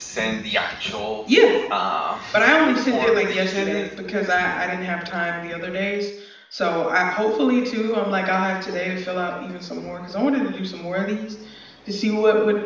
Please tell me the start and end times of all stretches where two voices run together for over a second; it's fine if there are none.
2.3-3.8

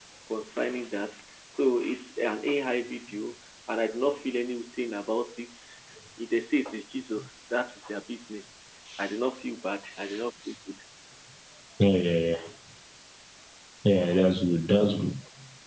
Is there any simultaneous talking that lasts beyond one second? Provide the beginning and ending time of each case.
none

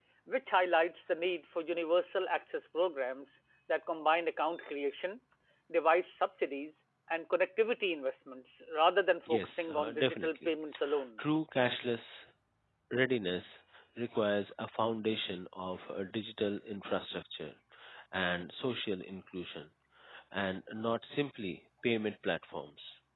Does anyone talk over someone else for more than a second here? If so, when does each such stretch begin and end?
9.3-10.5

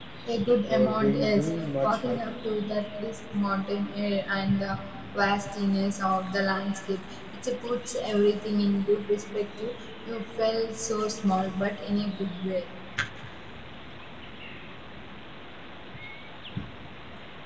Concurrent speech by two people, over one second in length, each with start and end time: 0.6-2.4

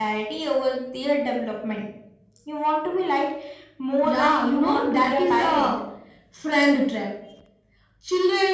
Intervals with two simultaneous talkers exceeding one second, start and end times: 4.0-5.7

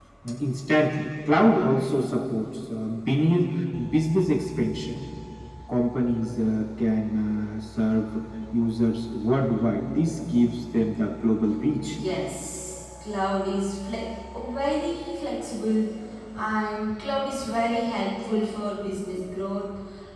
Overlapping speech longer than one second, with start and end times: none

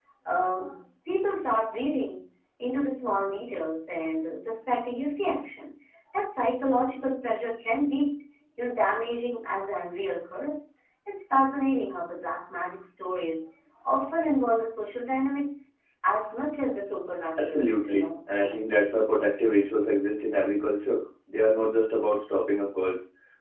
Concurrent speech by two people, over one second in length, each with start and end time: 17.4-18.8

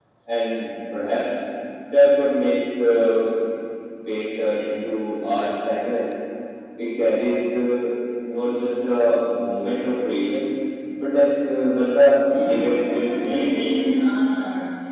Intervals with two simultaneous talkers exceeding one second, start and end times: 12.3-13.6

